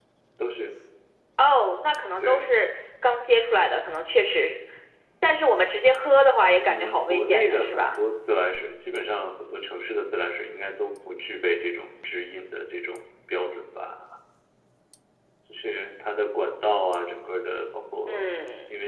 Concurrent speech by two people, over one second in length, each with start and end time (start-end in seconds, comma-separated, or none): 6.6-8.0